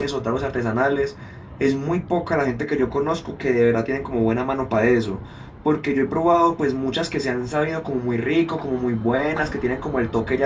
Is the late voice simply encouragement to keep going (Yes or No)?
Yes